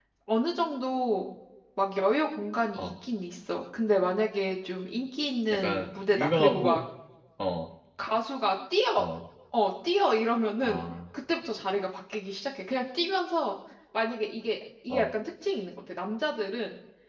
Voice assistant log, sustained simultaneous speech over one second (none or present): present